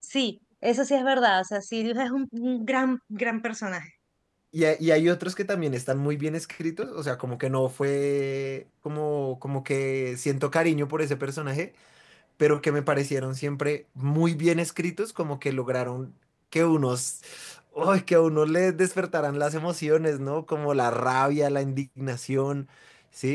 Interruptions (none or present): none